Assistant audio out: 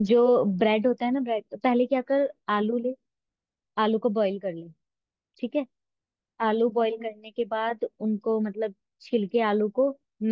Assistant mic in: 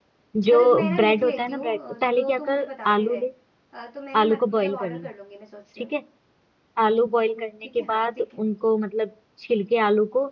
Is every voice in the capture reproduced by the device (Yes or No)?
No